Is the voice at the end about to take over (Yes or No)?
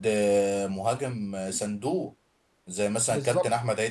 No